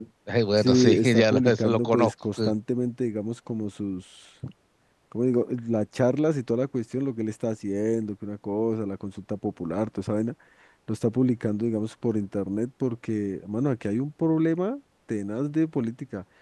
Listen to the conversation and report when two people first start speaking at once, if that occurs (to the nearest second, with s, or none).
1 s